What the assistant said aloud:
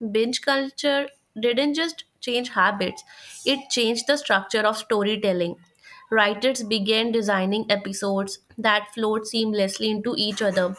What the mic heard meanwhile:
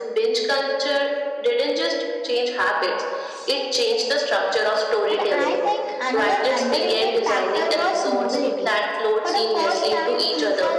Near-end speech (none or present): present